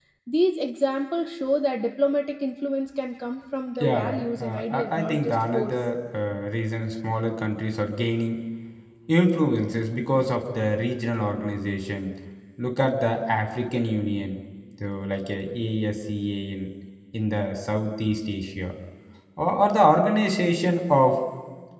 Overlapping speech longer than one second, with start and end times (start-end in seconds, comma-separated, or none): 3.8-5.7